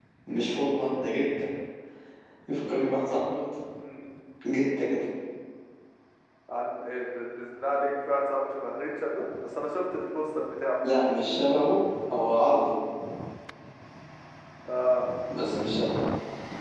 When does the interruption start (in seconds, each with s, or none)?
none